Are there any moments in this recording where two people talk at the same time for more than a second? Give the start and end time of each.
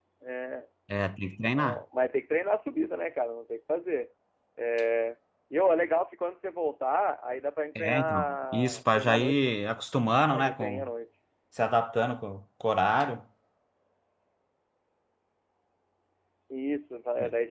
7.8-9.3

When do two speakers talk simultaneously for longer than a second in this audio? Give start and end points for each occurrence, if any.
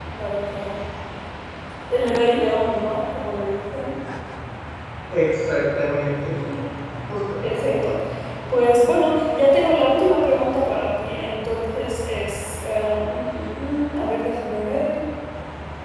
none

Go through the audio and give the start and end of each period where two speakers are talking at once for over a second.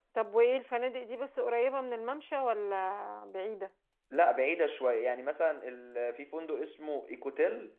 none

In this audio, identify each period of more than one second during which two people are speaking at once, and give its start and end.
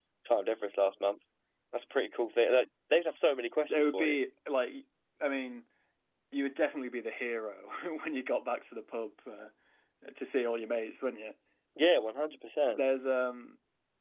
none

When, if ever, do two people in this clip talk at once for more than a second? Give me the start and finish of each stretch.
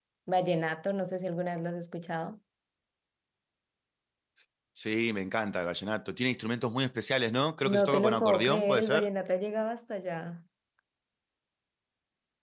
7.6-9.1

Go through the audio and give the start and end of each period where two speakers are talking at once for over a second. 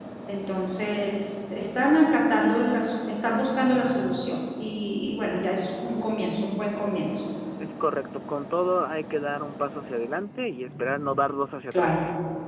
none

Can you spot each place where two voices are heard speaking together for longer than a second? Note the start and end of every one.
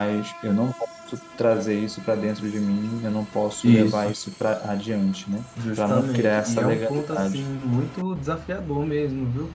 5.8-7.4

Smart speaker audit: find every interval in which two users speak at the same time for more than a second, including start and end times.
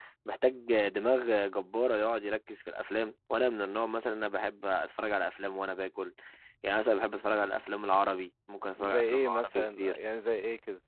8.8-10.0

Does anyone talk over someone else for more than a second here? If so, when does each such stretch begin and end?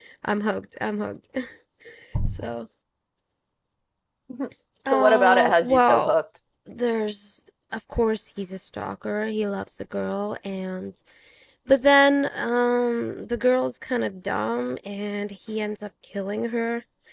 4.9-6.2

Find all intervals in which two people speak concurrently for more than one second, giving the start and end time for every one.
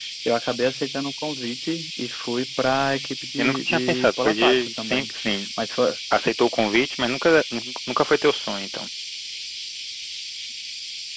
3.4-5.1

